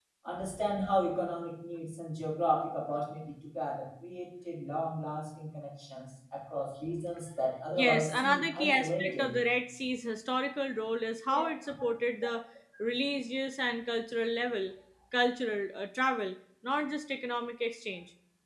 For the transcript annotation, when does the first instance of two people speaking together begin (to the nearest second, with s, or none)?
8 s